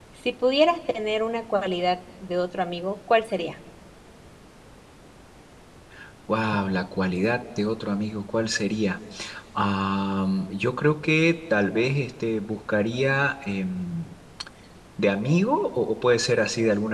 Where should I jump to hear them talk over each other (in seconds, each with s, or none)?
none